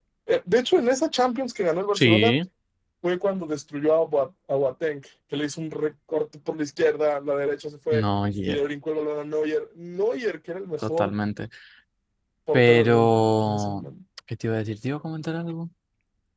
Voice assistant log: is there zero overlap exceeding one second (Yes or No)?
No